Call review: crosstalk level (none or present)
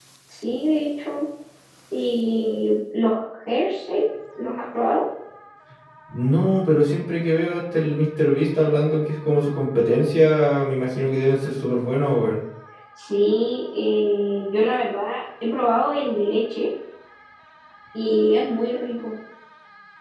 none